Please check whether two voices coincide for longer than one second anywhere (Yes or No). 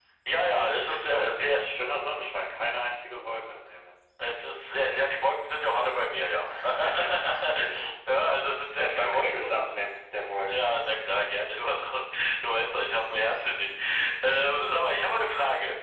Yes